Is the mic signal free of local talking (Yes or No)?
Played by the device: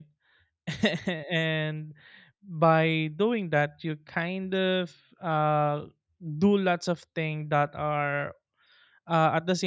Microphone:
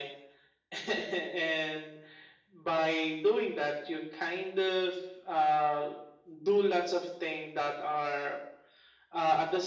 Yes